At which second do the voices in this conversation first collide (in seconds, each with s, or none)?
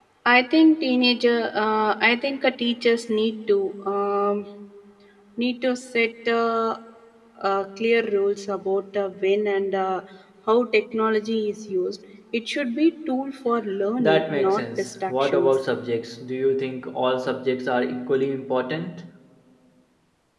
14.0 s